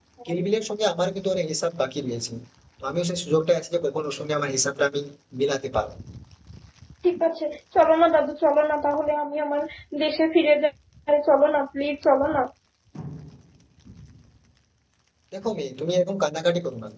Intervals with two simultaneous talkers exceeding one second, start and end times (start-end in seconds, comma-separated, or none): none